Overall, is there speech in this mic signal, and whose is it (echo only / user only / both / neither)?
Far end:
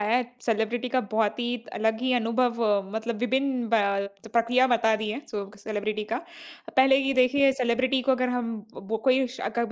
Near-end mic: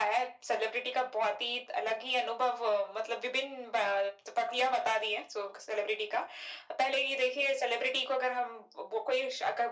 echo only